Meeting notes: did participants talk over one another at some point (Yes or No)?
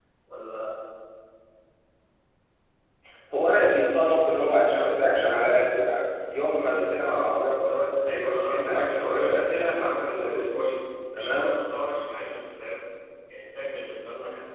Yes